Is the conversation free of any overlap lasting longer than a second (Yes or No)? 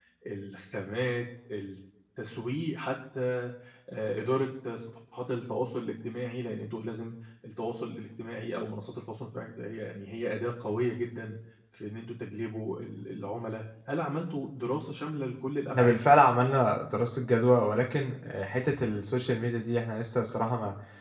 Yes